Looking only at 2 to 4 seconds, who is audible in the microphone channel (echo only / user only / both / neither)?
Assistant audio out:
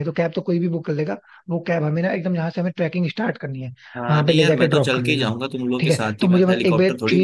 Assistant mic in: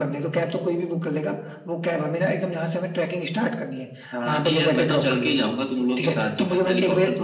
echo only